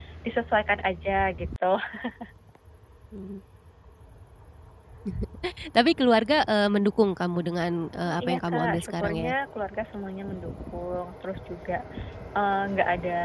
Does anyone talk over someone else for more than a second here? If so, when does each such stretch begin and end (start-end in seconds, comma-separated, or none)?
8.0-9.3